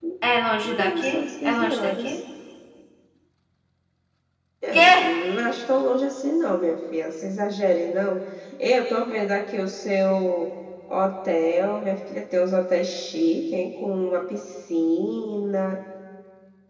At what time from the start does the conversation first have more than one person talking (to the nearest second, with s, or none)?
1 s